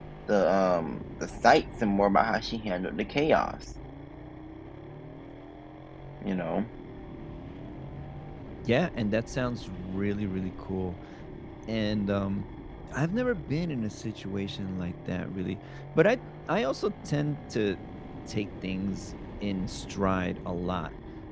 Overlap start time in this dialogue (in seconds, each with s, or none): none